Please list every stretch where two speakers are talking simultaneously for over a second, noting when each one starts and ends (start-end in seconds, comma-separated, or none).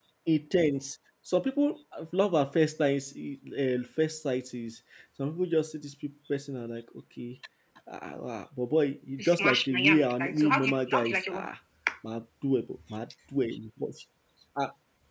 9.2-11.5